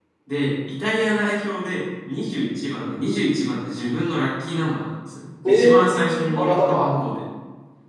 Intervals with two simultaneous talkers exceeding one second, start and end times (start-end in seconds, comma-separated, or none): 5.5-6.9